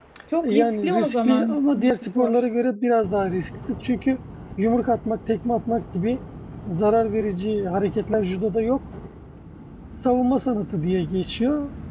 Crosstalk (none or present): present